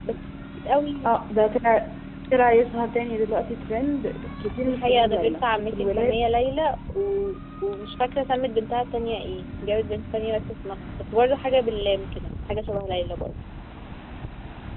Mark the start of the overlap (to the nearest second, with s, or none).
5 s